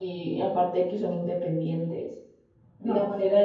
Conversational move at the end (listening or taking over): listening